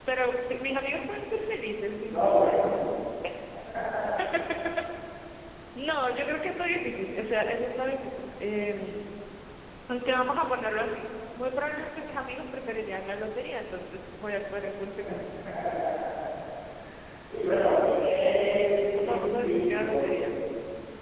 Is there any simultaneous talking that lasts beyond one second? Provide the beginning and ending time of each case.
18.6-20.3

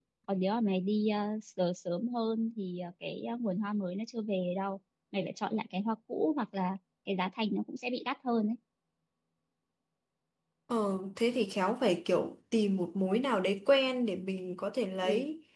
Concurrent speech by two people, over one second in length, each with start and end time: none

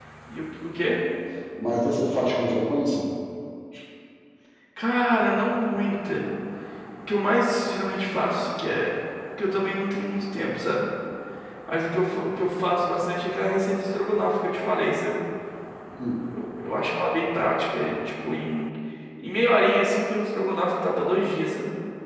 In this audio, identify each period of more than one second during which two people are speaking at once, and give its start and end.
none

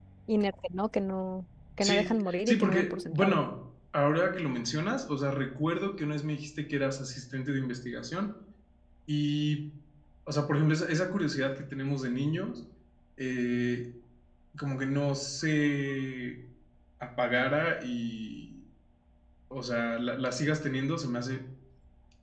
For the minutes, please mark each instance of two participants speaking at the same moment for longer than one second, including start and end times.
1.8-3.4

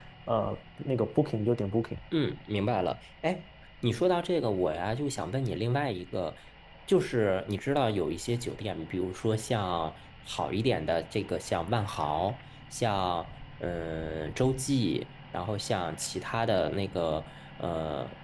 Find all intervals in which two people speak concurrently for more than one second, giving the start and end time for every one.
none

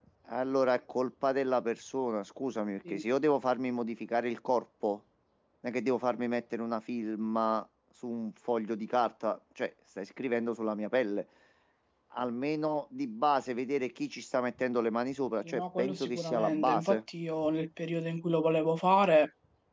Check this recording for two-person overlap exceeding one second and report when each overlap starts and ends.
15.4-17.0

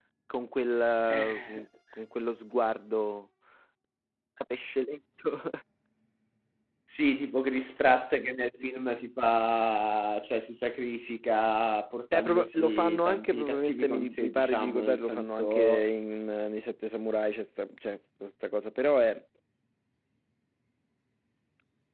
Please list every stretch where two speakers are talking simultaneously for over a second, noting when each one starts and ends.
12.1-15.9

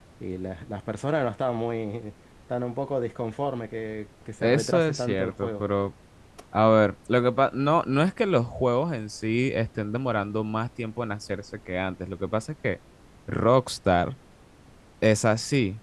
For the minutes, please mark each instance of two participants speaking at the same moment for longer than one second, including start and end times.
4.4-5.6

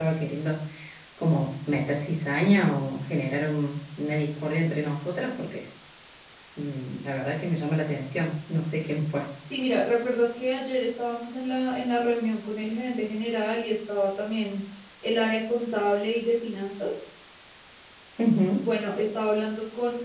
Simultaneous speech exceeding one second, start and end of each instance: none

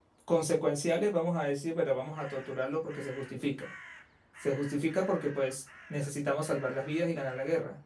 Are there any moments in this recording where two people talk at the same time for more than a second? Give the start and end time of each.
none

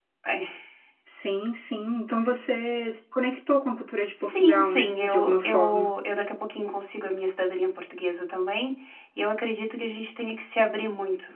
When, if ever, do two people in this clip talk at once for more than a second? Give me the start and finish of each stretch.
4.2-5.9

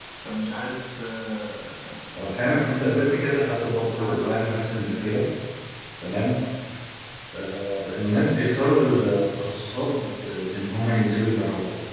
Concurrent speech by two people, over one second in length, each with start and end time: 2.2-5.2

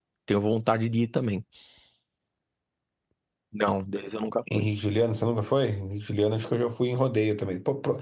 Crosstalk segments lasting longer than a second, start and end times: none

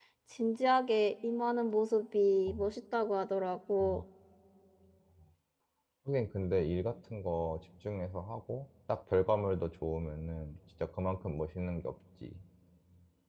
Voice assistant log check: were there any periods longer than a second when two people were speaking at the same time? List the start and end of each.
none

